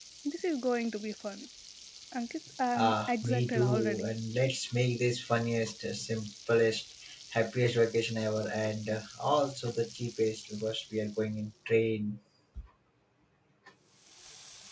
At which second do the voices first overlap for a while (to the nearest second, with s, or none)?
3 s